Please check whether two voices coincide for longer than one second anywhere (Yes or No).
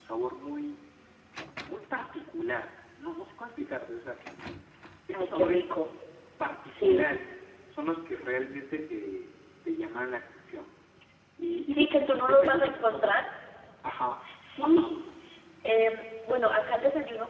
Yes